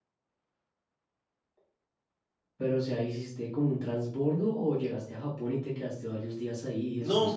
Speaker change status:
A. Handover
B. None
A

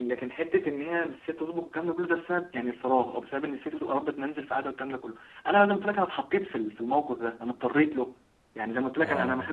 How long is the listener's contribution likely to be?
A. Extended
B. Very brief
B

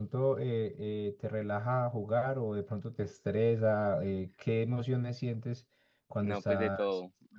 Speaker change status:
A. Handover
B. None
A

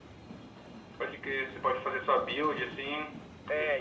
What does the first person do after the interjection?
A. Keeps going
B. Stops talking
B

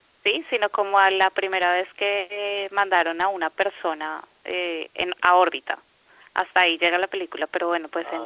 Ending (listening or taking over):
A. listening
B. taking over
A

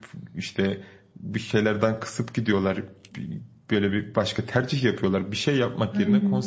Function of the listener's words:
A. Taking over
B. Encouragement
B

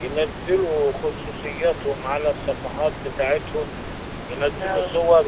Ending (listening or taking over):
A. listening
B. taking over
A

